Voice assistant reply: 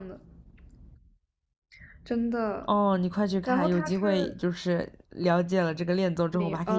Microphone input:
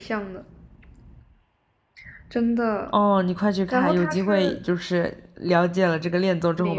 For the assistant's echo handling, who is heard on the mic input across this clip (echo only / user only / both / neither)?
echo only